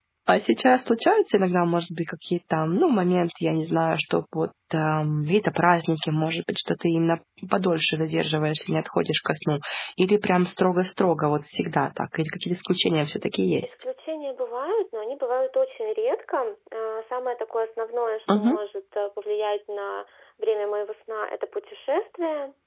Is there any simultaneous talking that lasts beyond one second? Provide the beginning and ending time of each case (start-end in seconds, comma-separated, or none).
none